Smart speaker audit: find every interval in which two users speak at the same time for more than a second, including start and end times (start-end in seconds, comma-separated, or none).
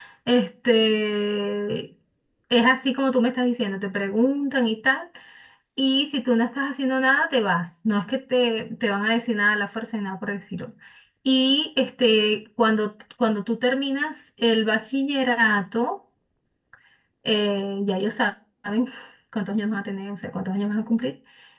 none